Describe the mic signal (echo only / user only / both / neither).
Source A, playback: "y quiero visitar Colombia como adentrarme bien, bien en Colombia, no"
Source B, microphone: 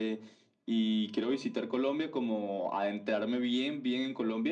echo only